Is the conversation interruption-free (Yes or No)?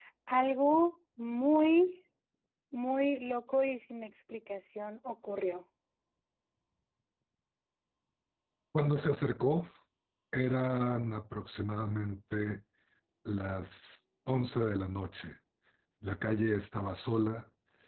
Yes